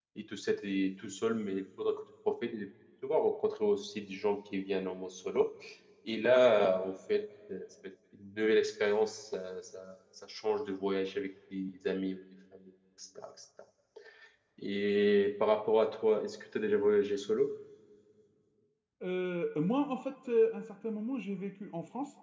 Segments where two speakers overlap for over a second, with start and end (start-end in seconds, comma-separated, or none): none